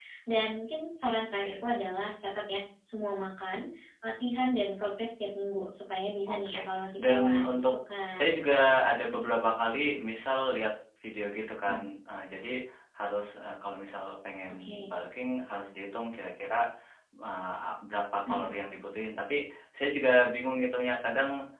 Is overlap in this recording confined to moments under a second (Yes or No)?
No